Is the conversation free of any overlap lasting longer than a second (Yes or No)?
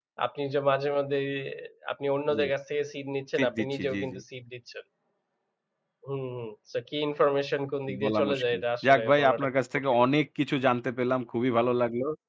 No